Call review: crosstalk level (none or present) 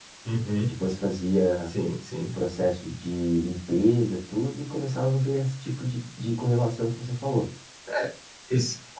none